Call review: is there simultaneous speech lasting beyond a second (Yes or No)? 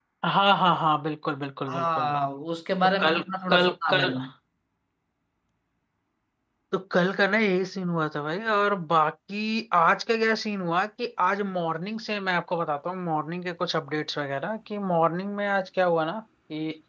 Yes